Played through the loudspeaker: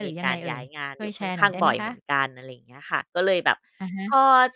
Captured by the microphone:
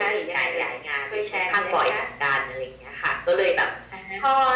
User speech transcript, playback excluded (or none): none